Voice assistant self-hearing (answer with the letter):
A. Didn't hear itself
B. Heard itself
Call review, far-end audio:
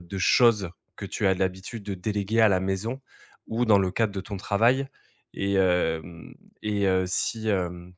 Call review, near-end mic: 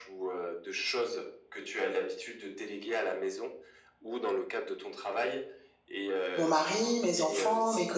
B